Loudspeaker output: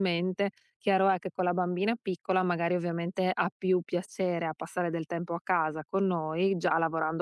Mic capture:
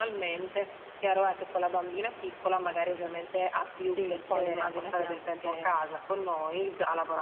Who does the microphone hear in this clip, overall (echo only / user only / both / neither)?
both